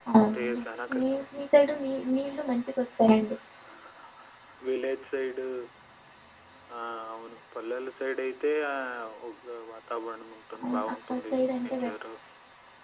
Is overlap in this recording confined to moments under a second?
No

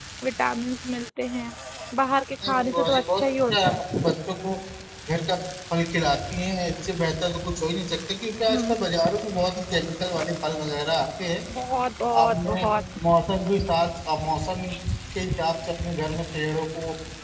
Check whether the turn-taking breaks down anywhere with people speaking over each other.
Yes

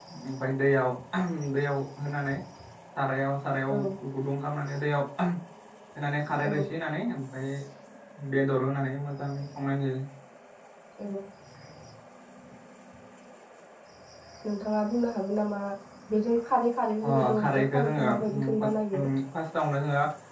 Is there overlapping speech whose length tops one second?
Yes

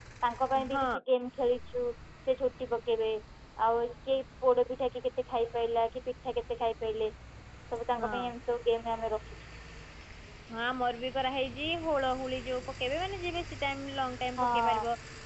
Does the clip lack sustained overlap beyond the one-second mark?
Yes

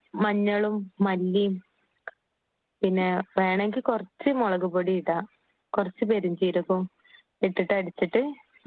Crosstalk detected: No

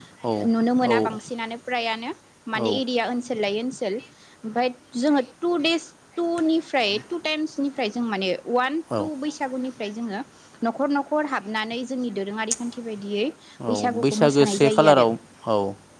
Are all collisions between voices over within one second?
No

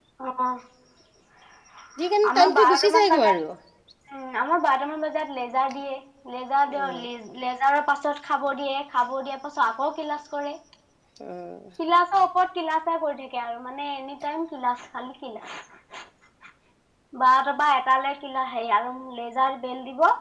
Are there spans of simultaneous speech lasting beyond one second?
Yes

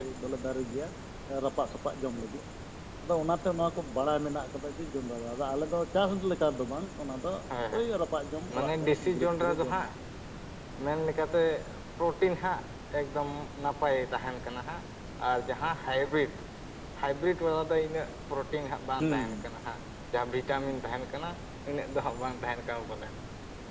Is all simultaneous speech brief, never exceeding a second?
No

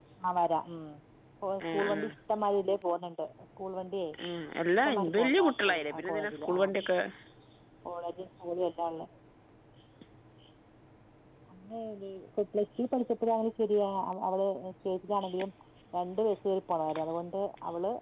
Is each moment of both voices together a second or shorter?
No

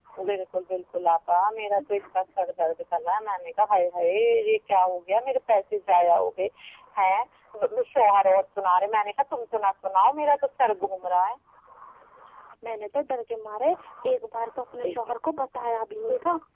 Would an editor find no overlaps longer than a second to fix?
Yes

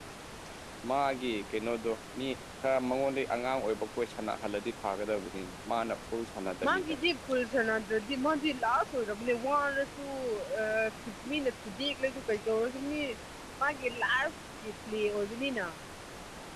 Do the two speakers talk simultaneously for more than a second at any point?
No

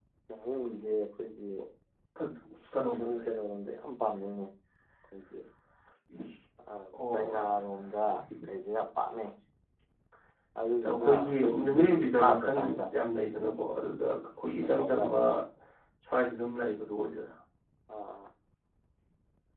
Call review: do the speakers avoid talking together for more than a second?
No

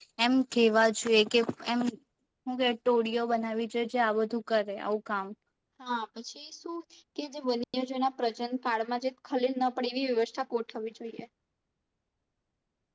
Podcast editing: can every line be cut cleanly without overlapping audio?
Yes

